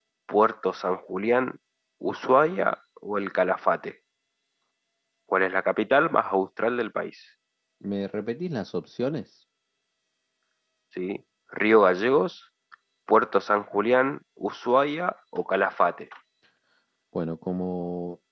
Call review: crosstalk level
none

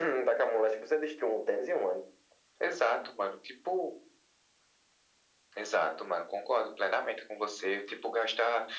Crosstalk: none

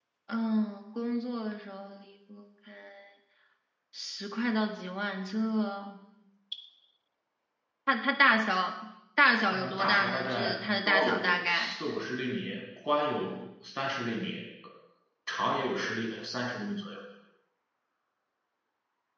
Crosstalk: present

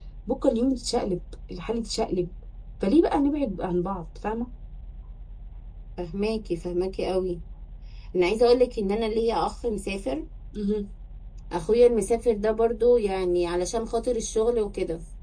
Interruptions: none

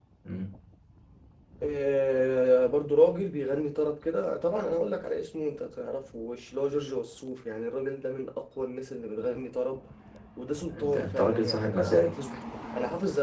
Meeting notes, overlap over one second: present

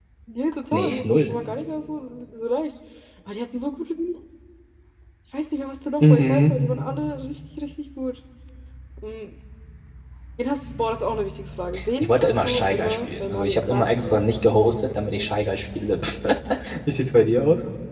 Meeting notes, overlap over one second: present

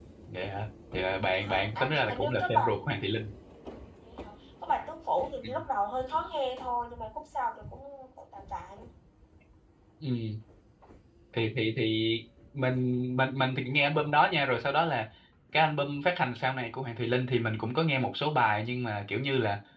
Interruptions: present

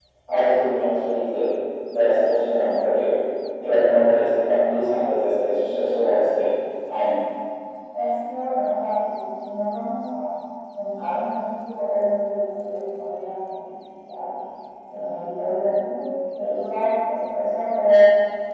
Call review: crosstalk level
none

